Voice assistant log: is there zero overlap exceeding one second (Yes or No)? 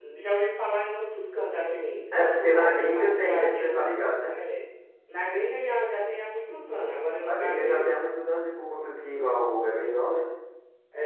No